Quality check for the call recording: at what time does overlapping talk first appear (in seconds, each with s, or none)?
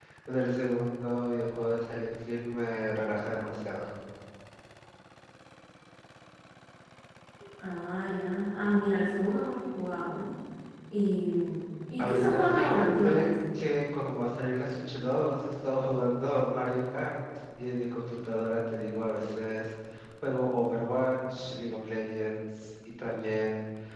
12.0 s